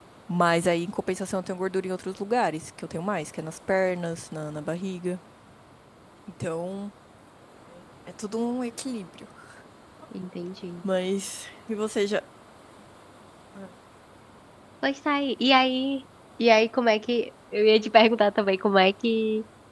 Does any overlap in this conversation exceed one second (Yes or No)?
No